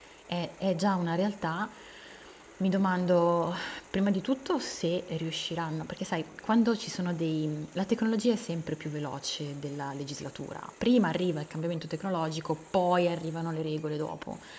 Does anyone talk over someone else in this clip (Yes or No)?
No